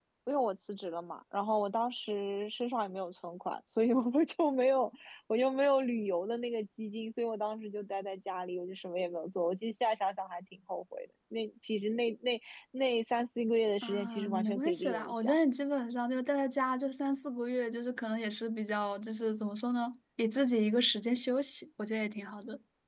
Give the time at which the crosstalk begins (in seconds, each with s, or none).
13.8 s